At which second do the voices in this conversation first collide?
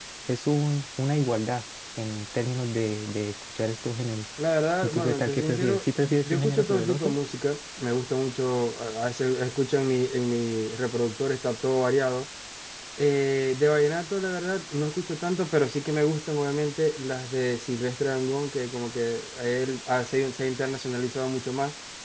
5 s

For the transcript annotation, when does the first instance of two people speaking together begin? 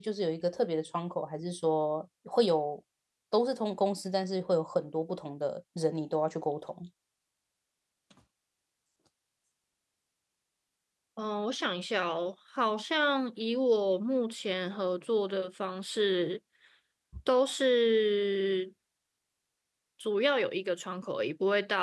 none

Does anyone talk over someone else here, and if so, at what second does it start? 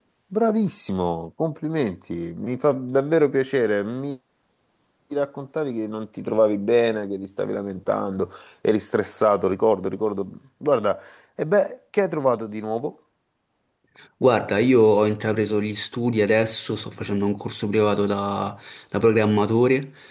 none

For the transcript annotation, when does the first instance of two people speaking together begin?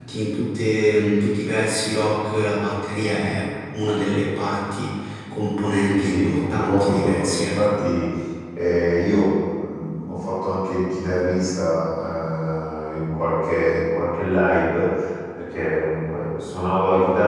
6 s

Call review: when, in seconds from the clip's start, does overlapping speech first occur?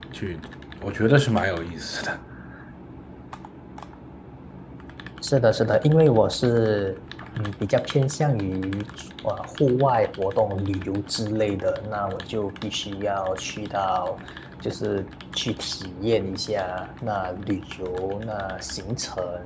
none

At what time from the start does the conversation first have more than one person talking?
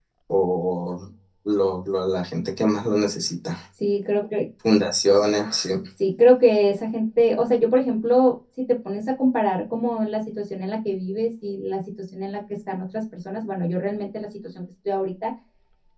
none

